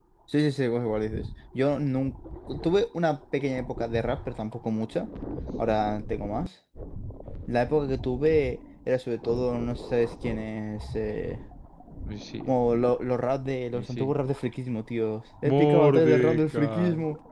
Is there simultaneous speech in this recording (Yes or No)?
Yes